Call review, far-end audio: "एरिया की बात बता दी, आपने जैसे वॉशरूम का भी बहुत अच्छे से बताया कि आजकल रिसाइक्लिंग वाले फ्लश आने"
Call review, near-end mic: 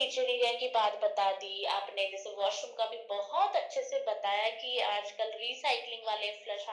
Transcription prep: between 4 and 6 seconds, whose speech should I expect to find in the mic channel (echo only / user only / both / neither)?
echo only